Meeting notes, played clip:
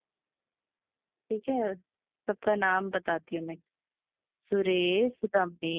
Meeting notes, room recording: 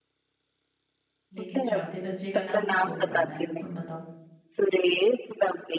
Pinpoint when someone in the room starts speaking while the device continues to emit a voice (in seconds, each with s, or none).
1.3 s